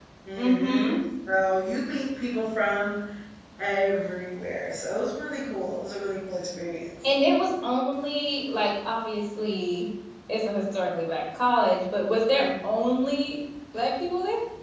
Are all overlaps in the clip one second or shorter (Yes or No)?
Yes